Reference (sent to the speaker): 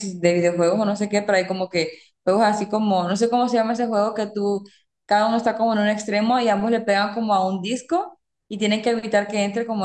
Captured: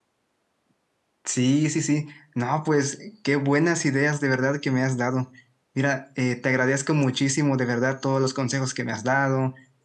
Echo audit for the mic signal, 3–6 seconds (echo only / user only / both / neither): user only